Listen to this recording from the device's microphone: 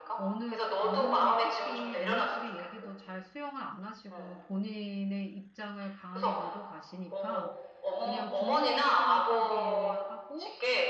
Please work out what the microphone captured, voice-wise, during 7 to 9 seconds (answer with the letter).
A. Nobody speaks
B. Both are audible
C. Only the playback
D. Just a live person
B